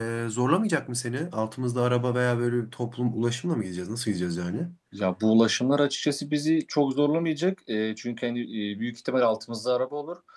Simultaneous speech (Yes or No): No